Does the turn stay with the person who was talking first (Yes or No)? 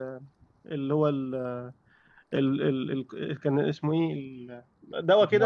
No